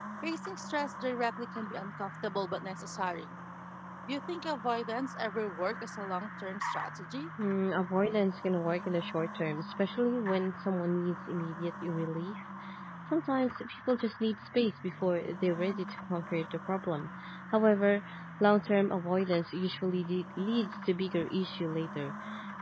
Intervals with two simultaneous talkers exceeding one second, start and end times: none

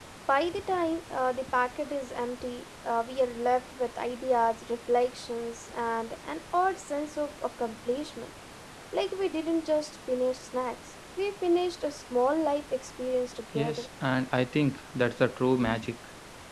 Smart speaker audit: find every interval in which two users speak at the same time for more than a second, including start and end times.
none

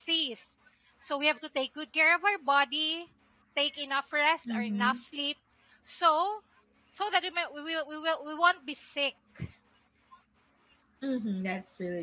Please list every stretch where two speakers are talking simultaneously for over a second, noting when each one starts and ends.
none

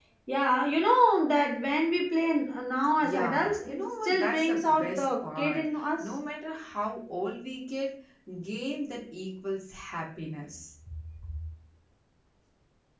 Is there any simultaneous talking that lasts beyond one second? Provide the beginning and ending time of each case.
3.0-6.1

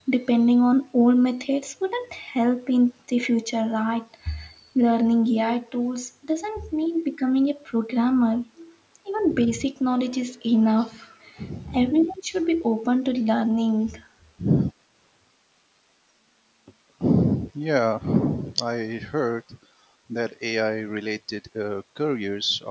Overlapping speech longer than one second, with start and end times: none

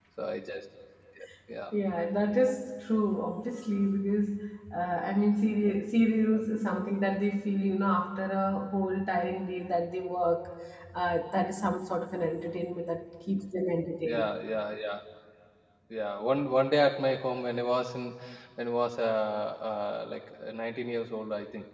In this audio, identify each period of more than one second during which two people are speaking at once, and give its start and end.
none

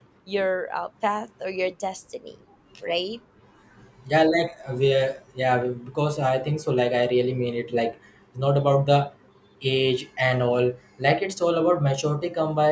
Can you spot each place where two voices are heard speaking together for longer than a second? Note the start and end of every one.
none

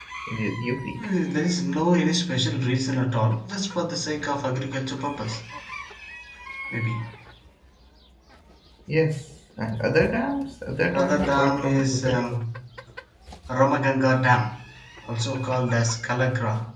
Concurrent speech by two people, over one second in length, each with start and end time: 10.9-12.2

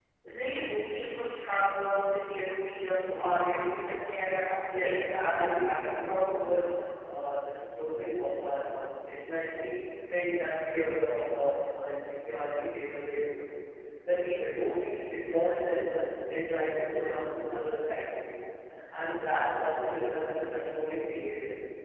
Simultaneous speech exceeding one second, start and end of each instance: 4.8-6.5

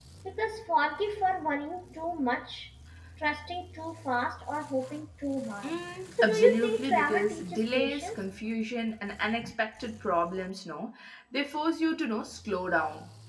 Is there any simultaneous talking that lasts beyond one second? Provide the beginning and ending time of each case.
6.2-8.2

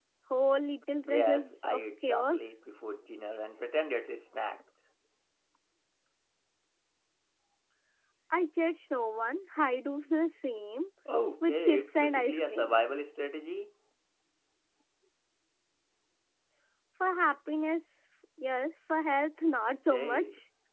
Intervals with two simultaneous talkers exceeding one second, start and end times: 1.1-2.5, 11.5-12.8

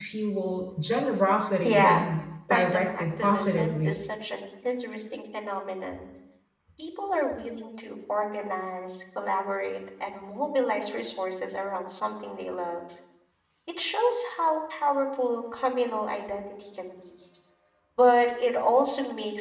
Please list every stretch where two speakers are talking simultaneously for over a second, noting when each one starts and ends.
2.5-4.0

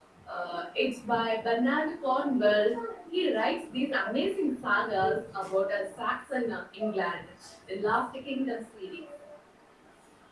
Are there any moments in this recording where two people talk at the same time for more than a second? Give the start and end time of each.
none

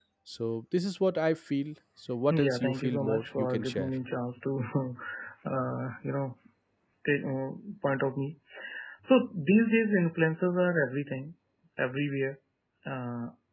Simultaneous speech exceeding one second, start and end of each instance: 2.3-3.9

